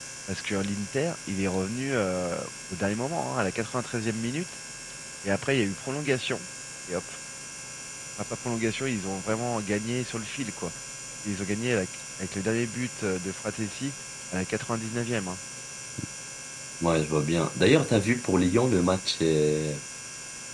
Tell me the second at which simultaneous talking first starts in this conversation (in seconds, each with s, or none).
none